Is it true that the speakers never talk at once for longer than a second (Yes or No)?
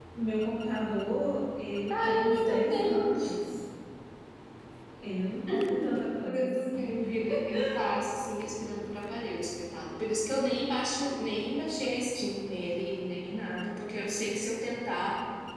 No